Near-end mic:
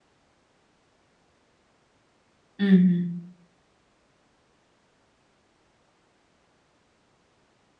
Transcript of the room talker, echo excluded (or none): ம், ம்.